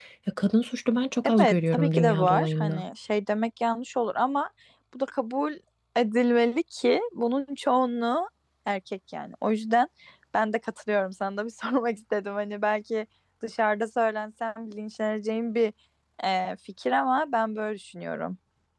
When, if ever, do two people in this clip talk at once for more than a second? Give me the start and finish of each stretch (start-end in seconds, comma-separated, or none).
1.2-2.8